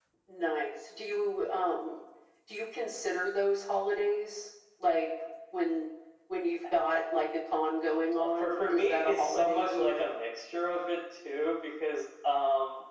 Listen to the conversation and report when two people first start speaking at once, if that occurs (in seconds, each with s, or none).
8.2 s